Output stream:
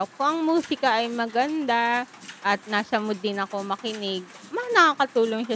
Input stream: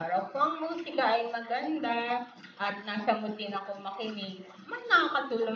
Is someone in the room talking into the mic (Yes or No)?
No